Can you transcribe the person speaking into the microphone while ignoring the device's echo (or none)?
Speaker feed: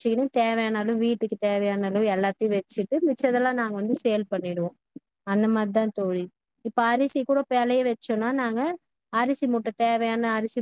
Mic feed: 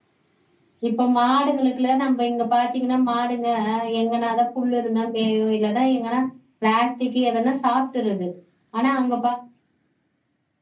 இப்போ மாடுகங்களுக்குலா நம்ப இங்க பாத்தீங்கனா மாடுங்க எங்கன தா புல்லு இருந்தா எங் வீட்லலா எங்கனா ப்ளாஸ்டிக்கி எதனா சாப்ட்டுறது ஆனா அங்க